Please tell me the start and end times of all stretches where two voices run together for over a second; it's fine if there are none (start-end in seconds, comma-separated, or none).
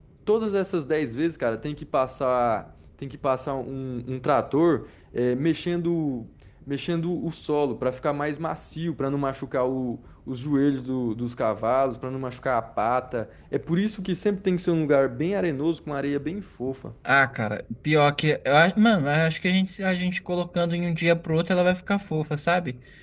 none